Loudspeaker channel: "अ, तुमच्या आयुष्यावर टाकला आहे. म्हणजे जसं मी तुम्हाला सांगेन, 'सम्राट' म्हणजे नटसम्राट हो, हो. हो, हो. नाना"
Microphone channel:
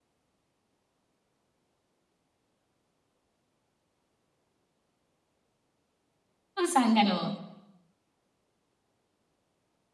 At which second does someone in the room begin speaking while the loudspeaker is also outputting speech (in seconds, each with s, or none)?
6.6 s